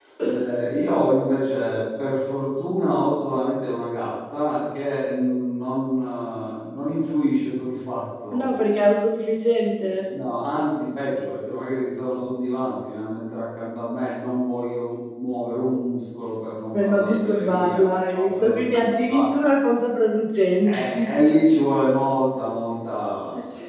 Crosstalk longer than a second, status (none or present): present